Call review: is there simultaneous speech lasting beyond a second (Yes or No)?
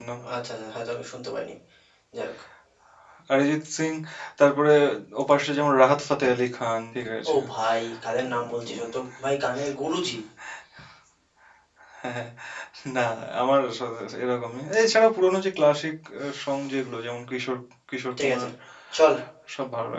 No